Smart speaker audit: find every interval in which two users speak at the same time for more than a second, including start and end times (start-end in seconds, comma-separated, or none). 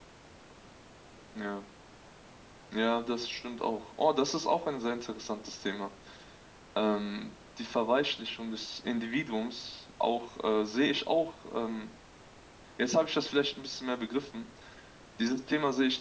none